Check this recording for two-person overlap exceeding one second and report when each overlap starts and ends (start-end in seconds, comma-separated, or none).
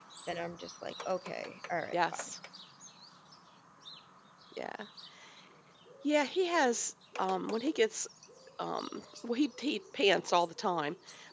none